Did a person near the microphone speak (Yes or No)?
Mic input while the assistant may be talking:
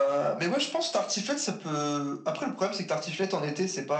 No